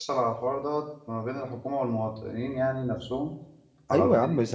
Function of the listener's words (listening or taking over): taking over